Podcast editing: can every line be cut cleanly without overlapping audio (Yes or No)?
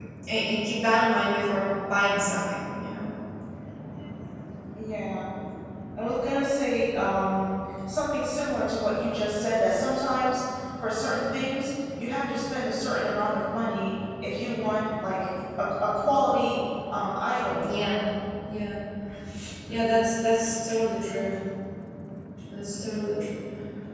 Yes